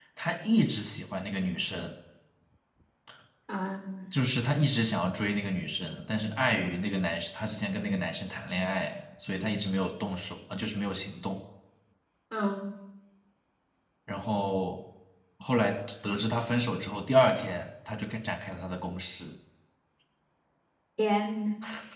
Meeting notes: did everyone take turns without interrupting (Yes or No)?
Yes